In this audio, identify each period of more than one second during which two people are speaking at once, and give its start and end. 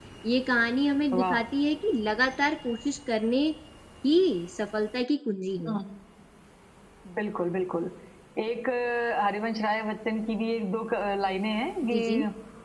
none

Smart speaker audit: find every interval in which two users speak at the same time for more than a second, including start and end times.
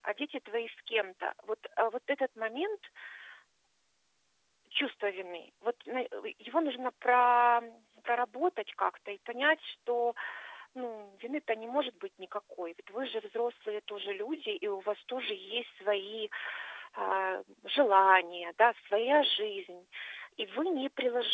none

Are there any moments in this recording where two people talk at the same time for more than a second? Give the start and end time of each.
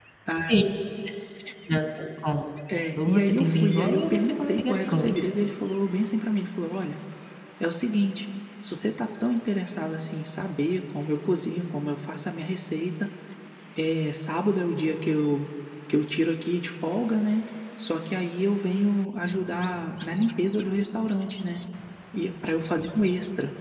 3.0-5.3

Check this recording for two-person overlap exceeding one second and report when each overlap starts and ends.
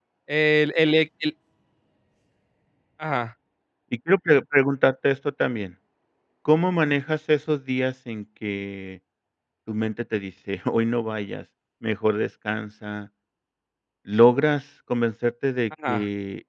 none

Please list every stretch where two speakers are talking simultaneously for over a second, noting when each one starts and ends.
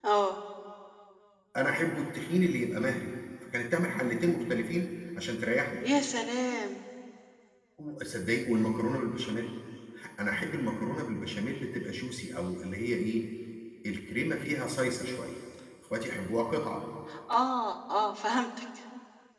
none

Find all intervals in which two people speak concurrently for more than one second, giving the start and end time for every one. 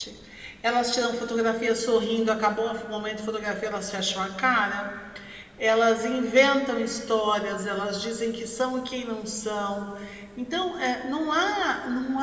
none

